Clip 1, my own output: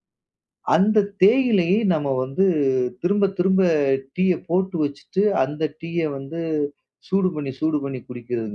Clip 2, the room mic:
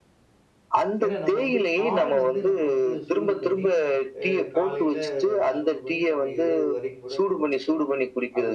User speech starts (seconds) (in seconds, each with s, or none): 1.0 s